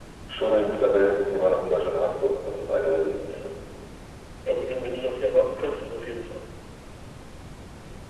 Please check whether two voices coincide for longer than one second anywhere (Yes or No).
No